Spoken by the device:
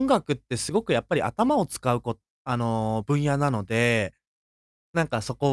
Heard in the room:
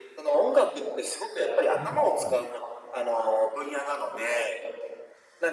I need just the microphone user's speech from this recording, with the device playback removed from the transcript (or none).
うん、うん。